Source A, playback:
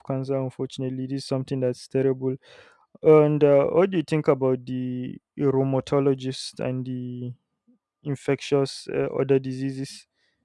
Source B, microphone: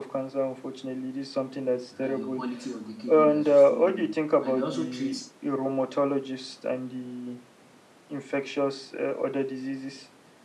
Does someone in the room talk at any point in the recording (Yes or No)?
Yes